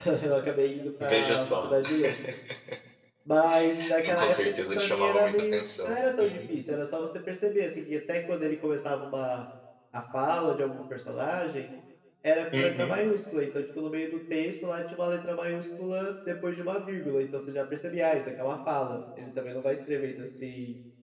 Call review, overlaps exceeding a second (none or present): present